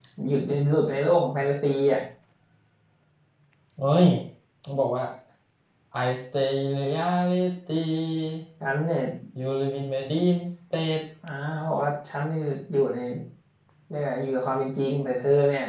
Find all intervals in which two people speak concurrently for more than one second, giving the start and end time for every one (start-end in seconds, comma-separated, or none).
none